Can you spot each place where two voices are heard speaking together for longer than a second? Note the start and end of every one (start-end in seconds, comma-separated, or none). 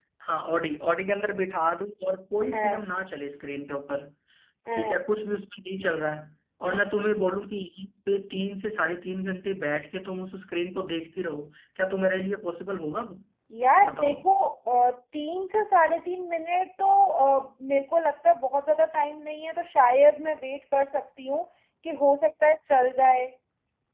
none